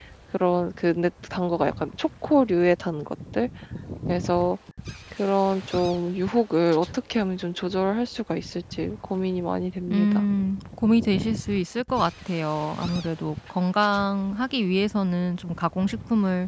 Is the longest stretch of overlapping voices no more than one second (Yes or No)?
Yes